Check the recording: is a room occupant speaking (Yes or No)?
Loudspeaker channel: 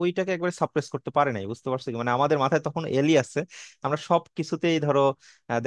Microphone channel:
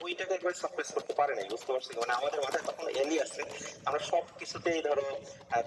No